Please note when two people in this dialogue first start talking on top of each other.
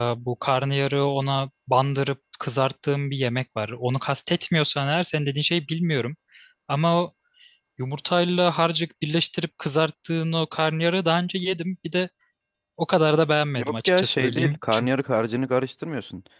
13.6 s

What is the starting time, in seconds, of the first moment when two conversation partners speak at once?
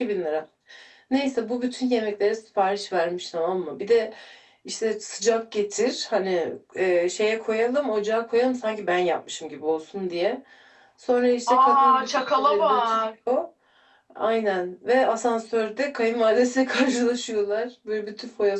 11.5 s

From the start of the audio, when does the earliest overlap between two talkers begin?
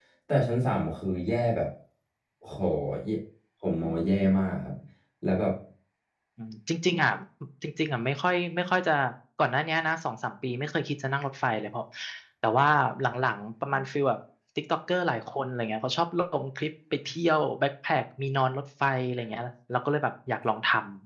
none

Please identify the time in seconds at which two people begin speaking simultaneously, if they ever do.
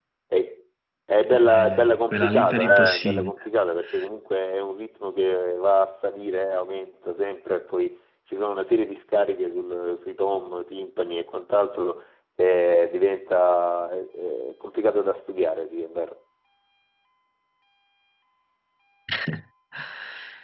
1.5 s

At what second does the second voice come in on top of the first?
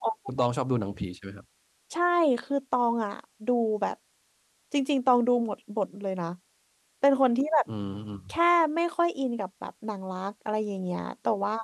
none

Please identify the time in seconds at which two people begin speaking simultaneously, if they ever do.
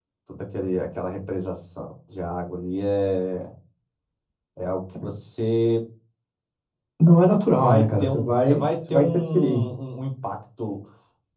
7.5 s

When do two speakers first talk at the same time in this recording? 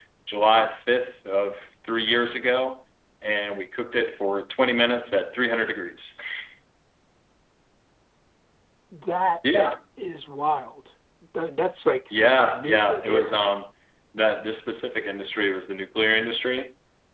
12.1 s

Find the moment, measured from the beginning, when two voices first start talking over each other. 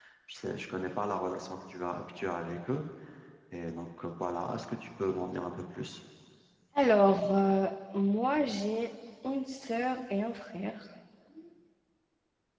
none

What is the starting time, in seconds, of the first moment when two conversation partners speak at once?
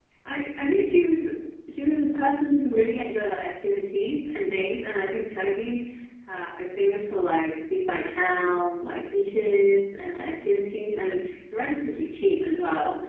none

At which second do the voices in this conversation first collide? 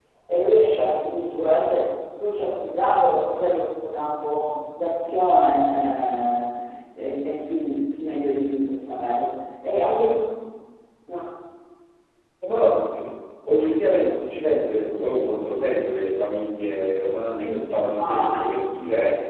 17.4 s

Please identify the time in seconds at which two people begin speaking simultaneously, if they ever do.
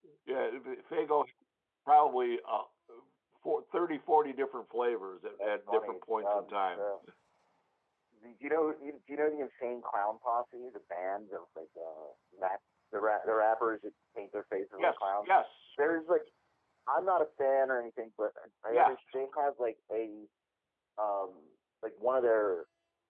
5.4 s

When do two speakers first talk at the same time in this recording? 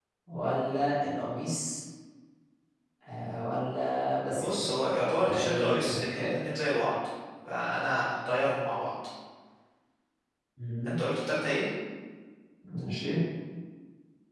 4.3 s

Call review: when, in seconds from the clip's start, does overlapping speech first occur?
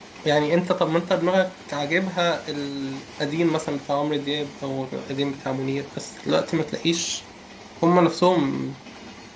none

